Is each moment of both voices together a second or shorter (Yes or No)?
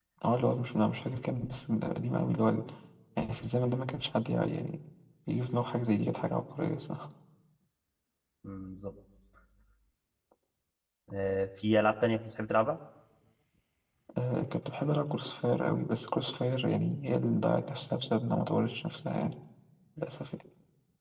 Yes